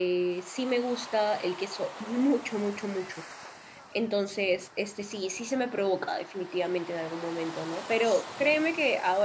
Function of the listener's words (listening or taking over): listening